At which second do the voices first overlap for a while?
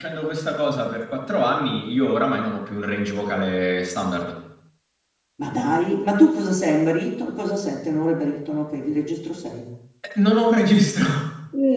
none

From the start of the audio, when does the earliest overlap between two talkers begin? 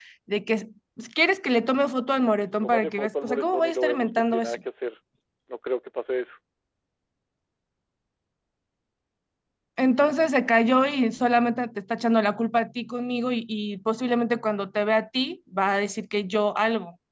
2.6 s

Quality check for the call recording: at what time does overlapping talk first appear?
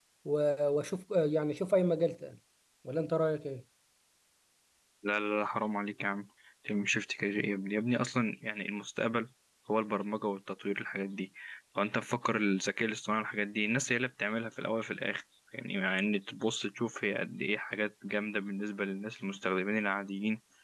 none

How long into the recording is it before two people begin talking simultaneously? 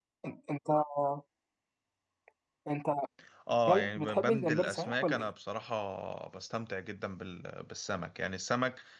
3.7 s

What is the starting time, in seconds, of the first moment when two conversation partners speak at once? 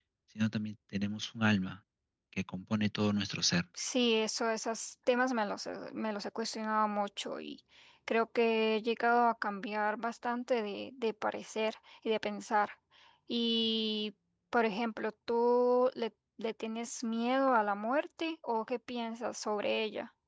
none

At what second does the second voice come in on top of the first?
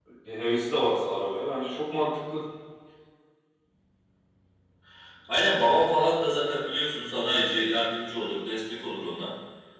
none

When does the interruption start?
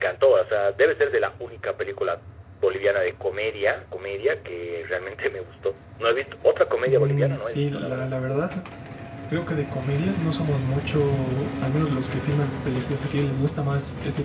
6.9 s

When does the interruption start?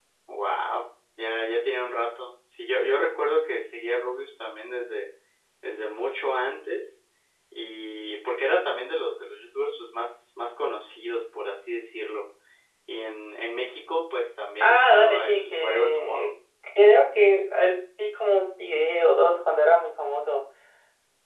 14.6 s

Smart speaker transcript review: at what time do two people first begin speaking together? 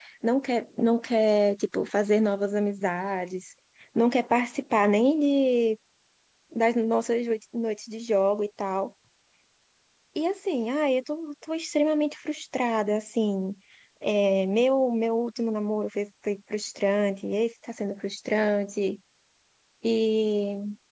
none

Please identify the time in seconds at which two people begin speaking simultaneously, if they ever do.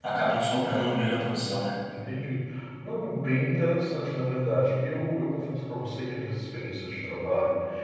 none

